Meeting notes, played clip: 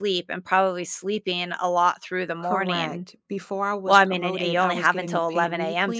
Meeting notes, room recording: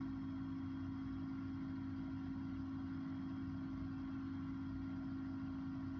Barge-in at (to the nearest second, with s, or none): none